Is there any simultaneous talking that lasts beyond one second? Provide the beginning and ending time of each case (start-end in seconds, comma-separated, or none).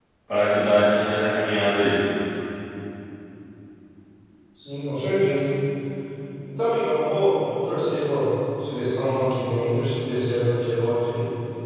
none